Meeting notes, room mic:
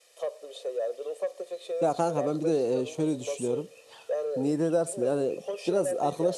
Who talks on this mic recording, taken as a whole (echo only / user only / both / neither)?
both